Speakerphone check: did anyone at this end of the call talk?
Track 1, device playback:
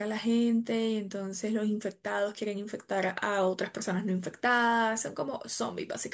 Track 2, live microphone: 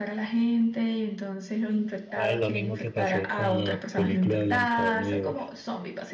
Yes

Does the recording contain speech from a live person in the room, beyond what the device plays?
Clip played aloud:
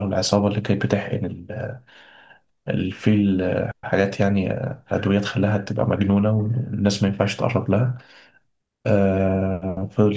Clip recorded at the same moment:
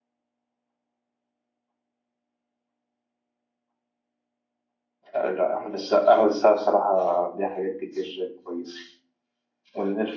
Yes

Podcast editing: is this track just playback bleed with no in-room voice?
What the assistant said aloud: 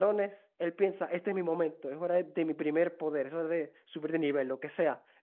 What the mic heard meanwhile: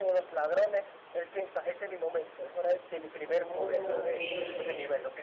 No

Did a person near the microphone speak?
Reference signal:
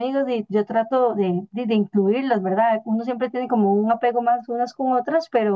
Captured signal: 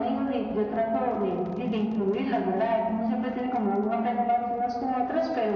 No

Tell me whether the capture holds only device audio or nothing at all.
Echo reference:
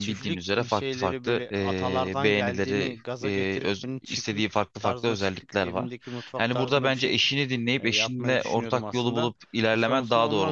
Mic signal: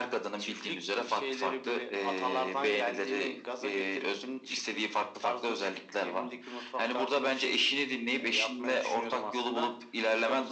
Yes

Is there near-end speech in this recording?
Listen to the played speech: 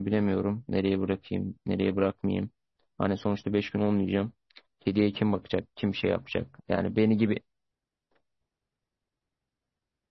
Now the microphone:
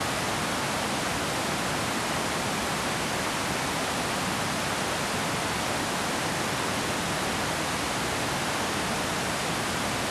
No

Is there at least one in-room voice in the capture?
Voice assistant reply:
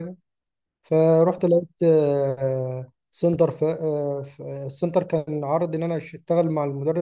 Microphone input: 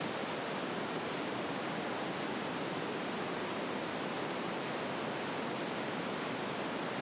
No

